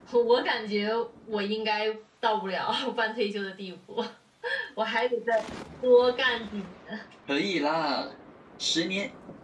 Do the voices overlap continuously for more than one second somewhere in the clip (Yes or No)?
No